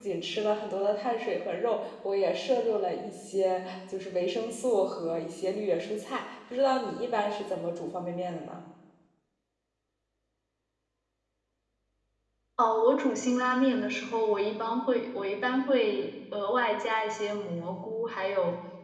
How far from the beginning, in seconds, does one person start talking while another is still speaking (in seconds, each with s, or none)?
none